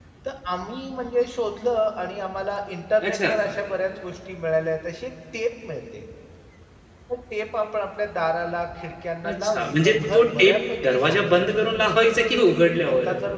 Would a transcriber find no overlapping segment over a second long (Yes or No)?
No